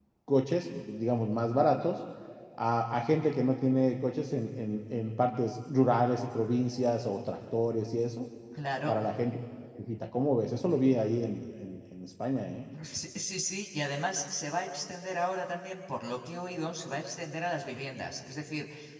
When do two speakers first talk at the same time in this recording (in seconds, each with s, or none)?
none